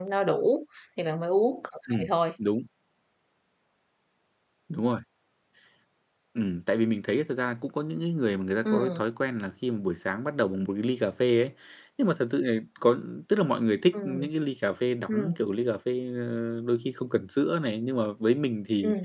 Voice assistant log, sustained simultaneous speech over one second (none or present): none